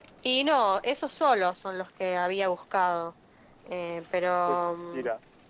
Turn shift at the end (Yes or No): Yes